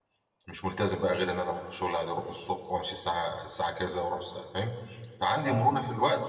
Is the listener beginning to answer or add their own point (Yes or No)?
No